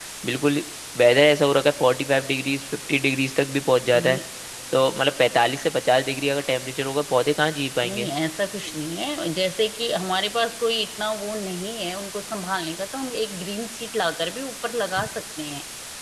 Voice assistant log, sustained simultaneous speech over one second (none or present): none